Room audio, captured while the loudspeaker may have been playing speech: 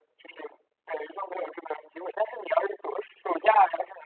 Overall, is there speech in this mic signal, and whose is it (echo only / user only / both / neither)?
echo only